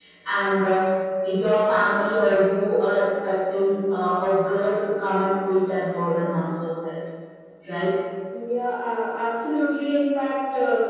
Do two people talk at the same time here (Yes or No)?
No